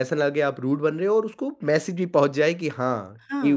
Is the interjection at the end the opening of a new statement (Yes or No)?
Yes